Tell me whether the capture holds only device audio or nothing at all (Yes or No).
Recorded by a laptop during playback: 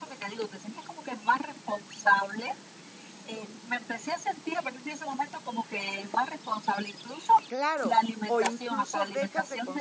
No